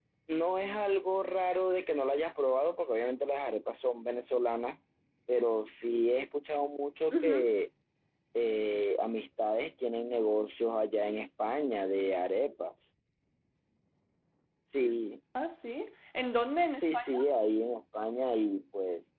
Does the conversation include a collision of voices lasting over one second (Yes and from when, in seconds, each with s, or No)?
No